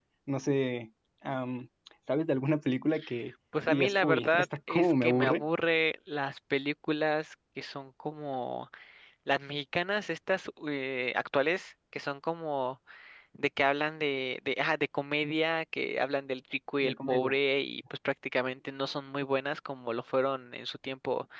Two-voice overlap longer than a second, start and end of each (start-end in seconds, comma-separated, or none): 3.7-5.4